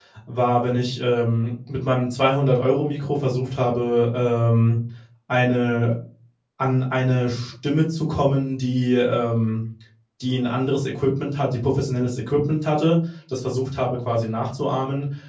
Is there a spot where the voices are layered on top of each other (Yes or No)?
No